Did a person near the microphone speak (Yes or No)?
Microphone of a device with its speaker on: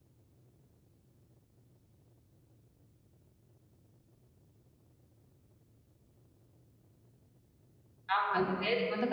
Yes